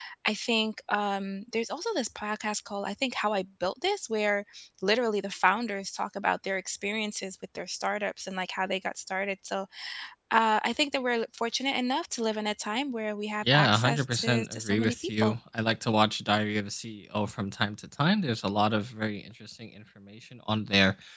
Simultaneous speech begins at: 13.4 s

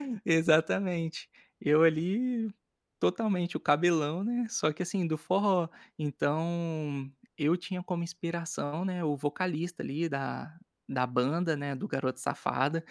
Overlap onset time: none

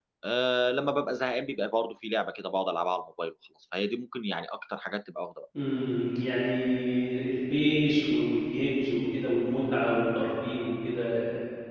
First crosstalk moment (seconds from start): none

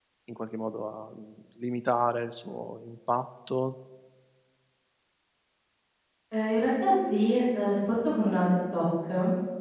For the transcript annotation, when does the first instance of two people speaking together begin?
none

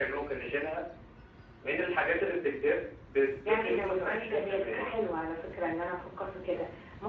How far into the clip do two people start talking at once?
3.5 s

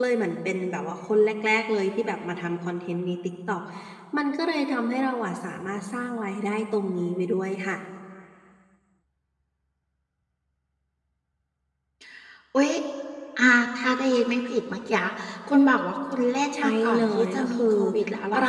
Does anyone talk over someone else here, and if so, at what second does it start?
16.5 s

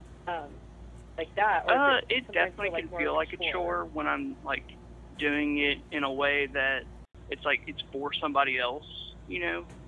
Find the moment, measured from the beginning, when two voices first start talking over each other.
1.7 s

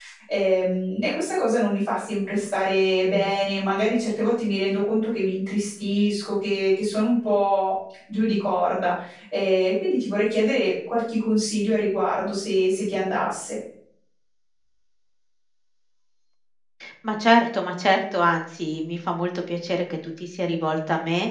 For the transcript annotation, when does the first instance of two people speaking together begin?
none

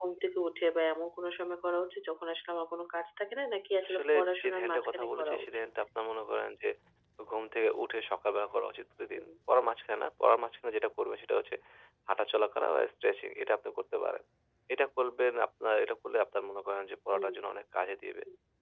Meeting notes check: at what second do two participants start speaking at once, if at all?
3.9 s

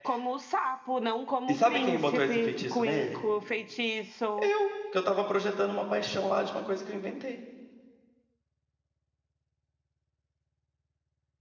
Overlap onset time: 1.5 s

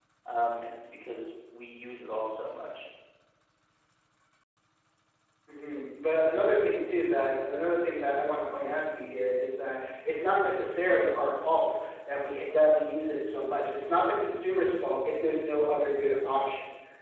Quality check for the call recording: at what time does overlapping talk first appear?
none

